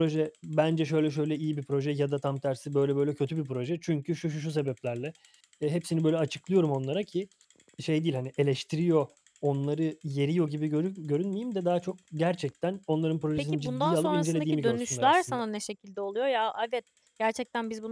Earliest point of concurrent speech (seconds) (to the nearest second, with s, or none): 13 s